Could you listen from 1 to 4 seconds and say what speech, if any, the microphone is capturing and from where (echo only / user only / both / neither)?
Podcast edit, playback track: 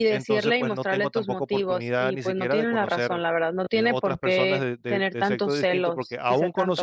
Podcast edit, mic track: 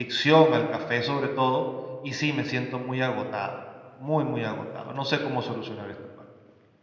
user only